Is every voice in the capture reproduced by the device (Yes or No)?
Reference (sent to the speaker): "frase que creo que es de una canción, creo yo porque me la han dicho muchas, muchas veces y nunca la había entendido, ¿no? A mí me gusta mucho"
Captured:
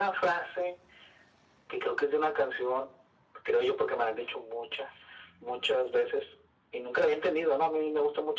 Yes